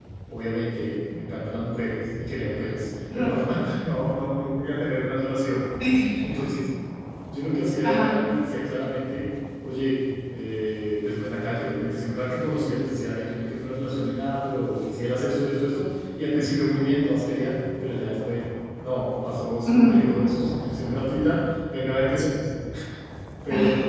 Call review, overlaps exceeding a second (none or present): none